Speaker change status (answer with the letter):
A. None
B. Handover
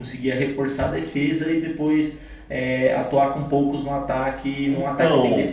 B